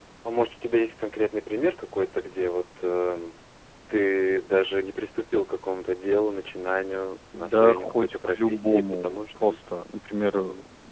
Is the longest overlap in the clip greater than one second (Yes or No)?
Yes